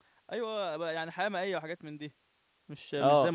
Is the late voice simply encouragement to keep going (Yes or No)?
No